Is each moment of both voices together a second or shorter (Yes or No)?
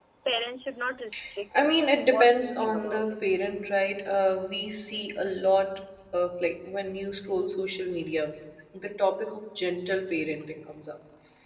No